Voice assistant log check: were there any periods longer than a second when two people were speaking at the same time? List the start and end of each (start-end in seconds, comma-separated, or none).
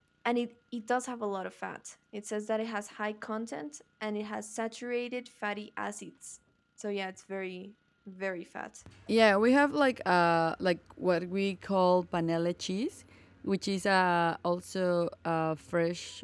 none